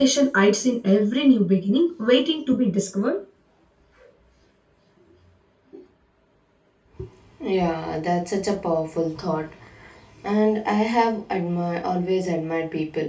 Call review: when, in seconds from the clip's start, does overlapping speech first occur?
none

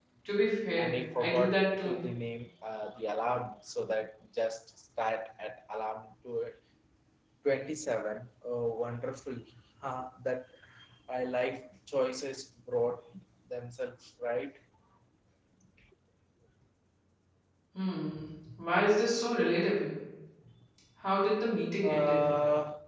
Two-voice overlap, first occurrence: 1 s

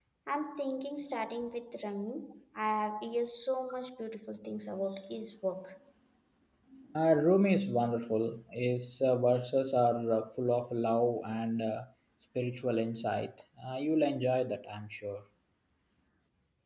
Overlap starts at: none

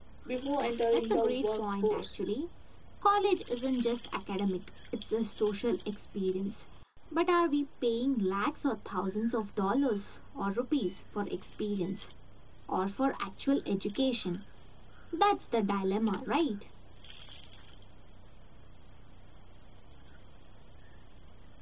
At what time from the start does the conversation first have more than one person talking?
1 s

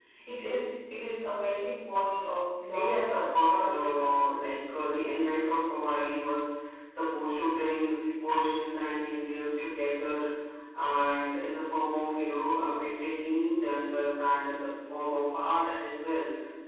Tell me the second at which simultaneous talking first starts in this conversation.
3 s

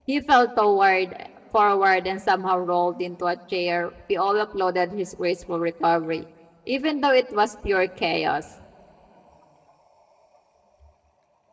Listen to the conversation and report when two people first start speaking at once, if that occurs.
none

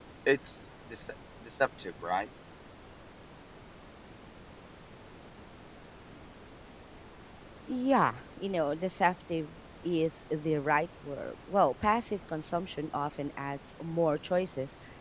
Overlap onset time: none

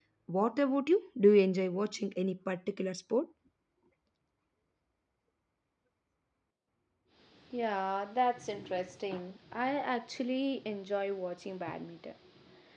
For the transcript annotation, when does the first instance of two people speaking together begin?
none

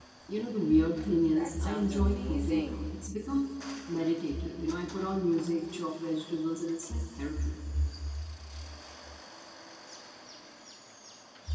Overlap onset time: 1 s

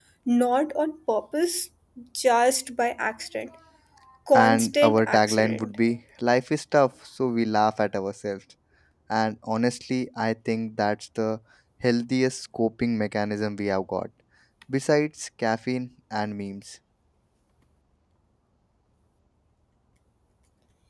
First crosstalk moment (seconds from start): 4 s

